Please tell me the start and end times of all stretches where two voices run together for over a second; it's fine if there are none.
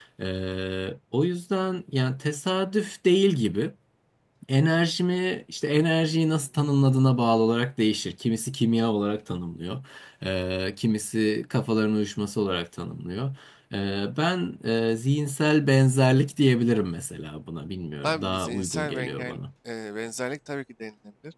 18.0-19.4

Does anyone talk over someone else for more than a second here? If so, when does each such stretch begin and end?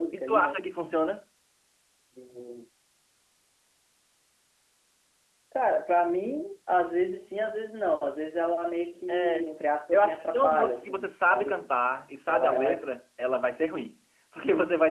9.9-11.6

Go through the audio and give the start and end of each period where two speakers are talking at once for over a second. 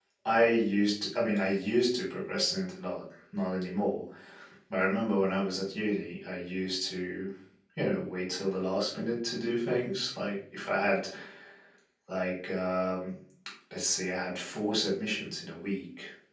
none

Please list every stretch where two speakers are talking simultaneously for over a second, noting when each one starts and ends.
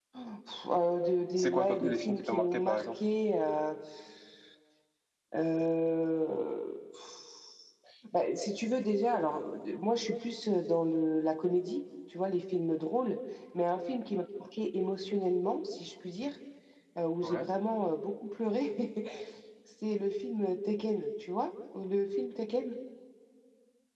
1.4-3.0

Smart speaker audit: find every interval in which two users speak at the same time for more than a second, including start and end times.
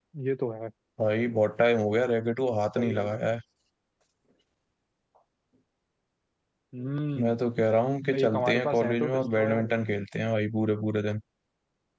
8.2-9.7

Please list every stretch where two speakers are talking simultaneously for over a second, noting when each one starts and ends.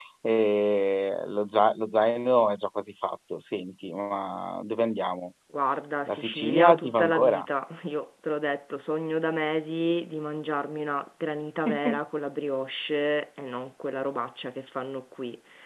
6.1-7.5

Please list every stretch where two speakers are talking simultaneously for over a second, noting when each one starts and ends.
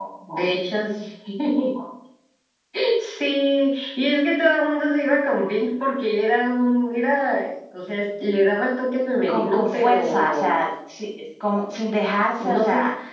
9.3-10.5

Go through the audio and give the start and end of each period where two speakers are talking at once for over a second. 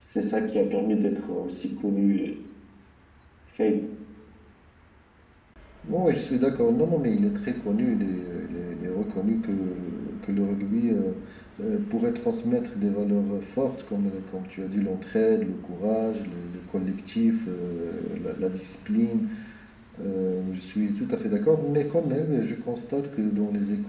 none

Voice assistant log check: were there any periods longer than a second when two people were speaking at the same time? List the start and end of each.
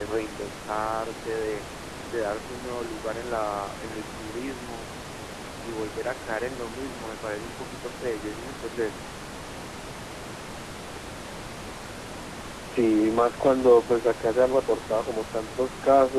none

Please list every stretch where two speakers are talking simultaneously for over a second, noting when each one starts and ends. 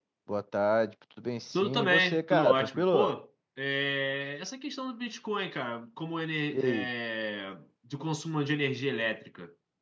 1.5-3.1

